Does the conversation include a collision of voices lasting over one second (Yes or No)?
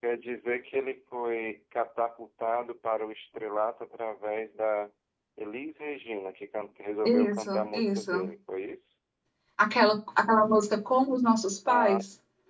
Yes